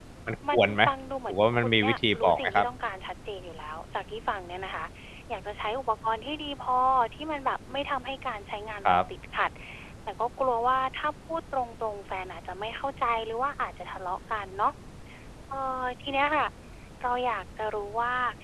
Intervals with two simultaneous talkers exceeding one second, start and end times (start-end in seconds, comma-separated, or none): 1.3-2.7